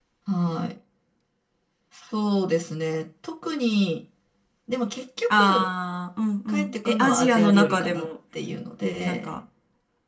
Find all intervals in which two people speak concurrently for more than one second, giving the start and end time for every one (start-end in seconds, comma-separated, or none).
6.5-8.1